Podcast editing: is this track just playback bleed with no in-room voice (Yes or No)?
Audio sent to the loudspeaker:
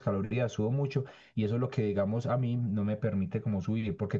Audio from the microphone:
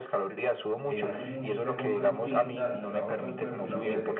No